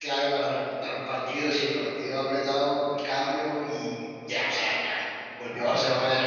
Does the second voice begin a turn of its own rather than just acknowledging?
No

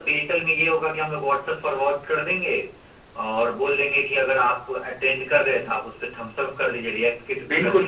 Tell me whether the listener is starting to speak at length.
Yes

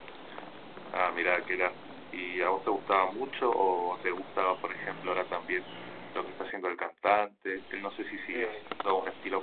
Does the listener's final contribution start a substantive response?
No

